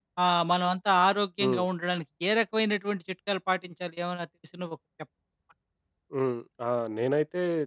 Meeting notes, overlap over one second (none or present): none